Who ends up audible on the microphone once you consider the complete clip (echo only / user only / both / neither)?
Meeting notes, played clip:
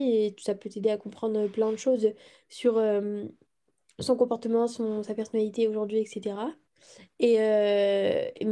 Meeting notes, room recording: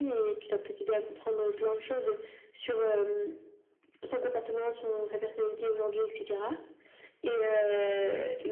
echo only